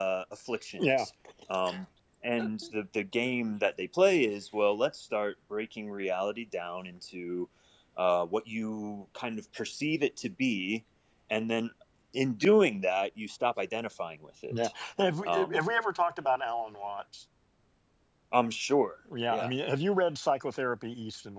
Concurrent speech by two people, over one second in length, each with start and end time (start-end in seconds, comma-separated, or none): none